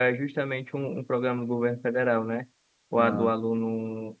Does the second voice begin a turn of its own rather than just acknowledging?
No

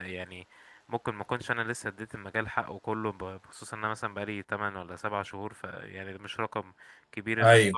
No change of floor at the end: Yes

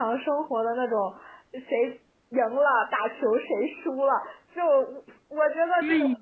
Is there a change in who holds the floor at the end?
No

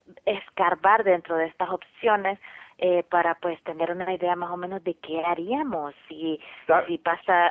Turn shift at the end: No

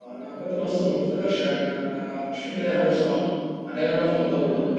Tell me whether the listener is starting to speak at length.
No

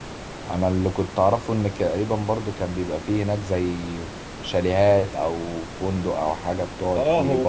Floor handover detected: Yes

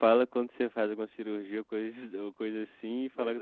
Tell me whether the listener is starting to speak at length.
No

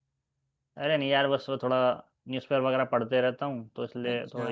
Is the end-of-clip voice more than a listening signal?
No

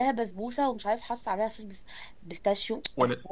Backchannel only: No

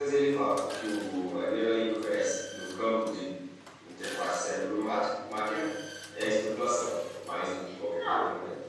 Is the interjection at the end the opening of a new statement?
Yes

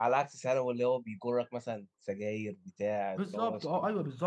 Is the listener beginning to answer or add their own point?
Yes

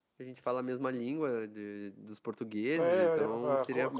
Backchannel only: No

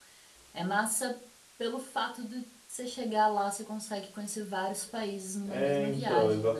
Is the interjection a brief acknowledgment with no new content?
No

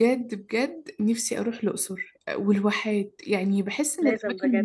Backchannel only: Yes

